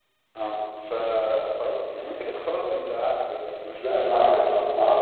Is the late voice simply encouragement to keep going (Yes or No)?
No